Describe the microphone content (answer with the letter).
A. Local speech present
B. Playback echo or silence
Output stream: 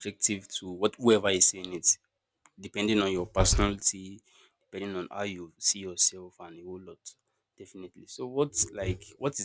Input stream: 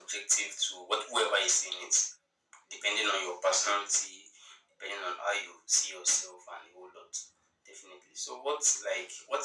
B